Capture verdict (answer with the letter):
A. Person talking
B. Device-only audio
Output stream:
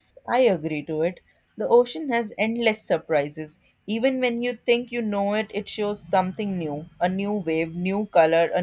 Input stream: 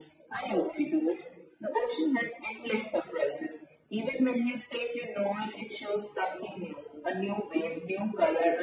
B